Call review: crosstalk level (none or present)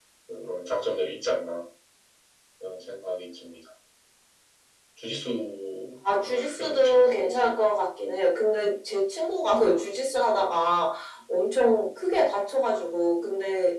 present